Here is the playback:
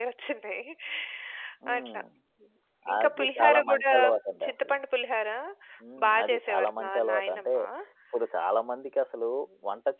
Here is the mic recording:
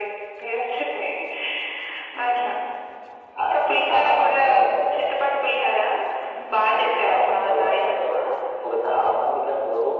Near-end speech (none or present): none